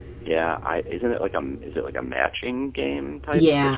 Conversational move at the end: taking over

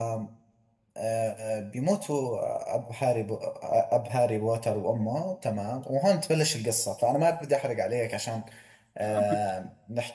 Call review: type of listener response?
listening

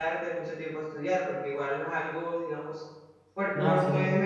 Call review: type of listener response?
listening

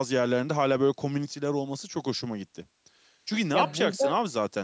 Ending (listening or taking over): listening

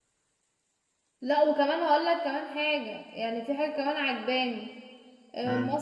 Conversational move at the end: listening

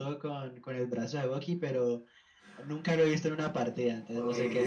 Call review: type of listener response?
taking over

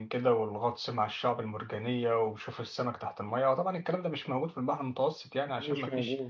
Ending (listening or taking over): listening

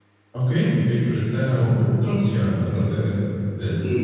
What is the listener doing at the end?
taking over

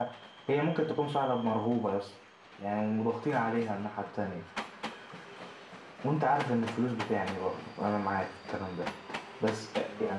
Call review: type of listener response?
taking over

